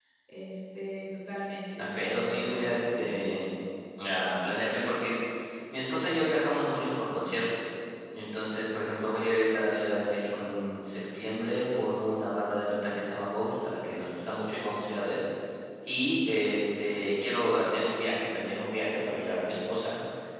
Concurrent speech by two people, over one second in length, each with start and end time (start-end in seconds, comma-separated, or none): 1.8-3.4